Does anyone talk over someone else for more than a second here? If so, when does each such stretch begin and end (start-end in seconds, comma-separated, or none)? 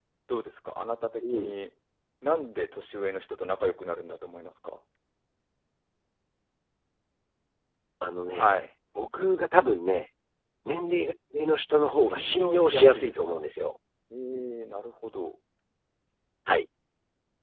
12.0-13.4